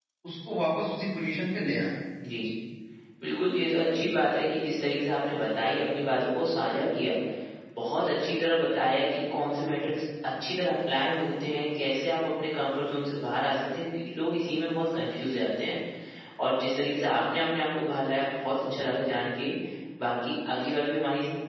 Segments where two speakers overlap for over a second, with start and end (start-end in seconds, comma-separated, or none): none